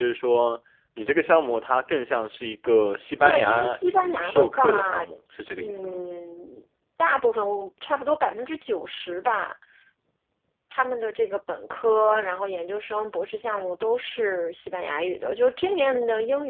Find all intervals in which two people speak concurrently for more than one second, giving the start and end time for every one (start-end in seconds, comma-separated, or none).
3.2-5.0